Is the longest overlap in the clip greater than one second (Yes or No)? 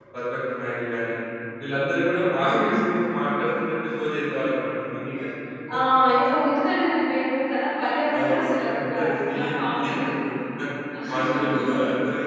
Yes